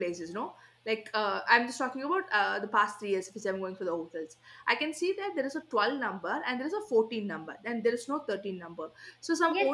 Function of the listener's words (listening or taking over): taking over